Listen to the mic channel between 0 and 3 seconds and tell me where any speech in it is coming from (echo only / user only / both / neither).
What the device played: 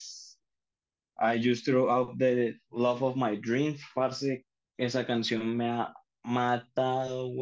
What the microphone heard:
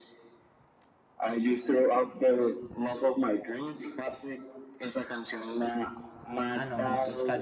echo only